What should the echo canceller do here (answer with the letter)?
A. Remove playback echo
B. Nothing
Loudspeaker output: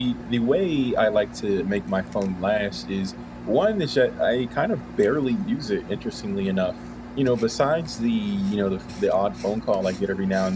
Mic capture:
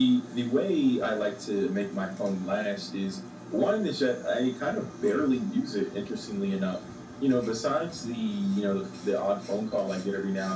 A